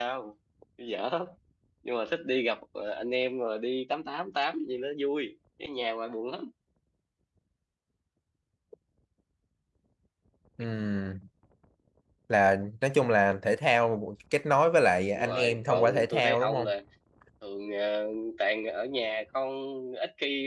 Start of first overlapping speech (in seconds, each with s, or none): 15.2 s